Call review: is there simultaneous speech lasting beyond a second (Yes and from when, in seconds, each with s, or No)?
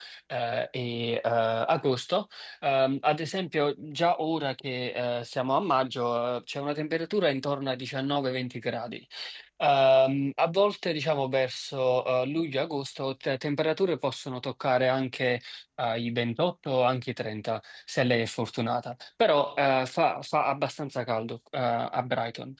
No